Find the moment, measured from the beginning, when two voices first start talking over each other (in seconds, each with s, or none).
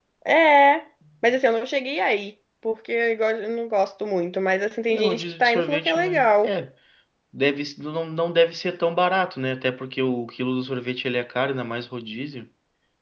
4.9 s